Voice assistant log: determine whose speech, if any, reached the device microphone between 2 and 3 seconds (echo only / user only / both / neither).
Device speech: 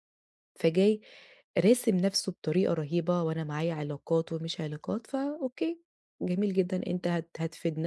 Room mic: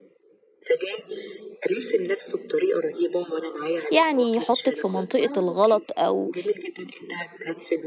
echo only